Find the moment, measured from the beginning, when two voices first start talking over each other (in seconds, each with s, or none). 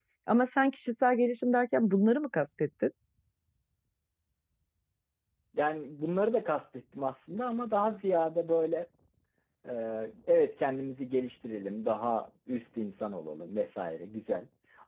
none